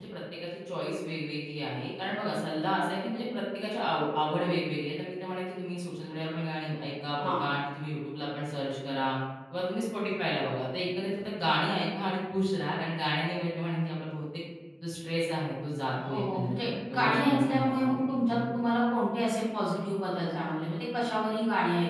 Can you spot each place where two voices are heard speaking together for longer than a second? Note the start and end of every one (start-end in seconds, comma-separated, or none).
16.0-18.4